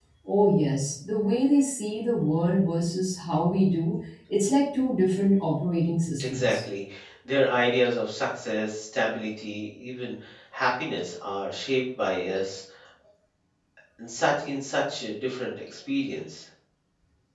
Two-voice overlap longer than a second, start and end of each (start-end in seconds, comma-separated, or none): none